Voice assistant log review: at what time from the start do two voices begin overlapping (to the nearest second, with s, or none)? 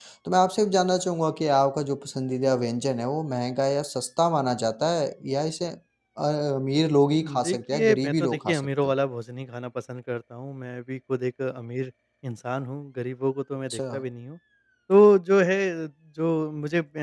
7 s